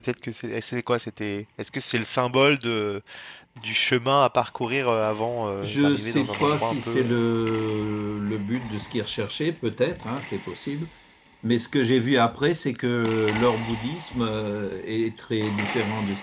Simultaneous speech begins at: 5.6 s

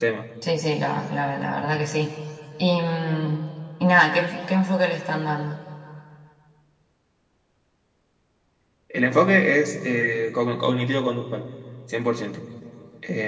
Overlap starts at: none

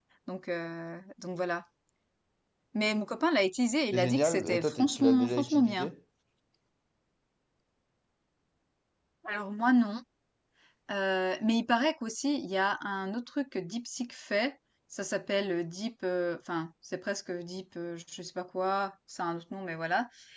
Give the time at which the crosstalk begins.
3.9 s

